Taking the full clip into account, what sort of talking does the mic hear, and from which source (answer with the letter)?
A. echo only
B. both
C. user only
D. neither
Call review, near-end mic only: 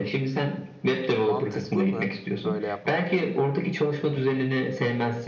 B